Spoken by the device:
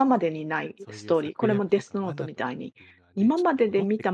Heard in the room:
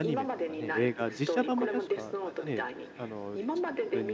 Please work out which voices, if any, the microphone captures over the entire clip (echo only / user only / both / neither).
both